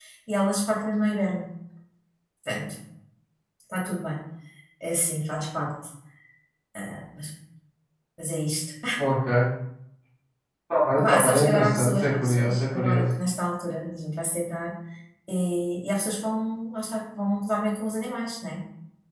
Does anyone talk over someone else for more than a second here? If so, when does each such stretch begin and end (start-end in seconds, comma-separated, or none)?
11.0-13.1